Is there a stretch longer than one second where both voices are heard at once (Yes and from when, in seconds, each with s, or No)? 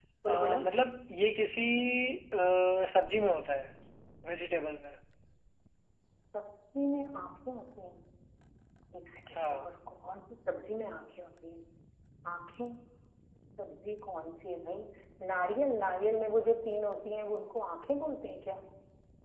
No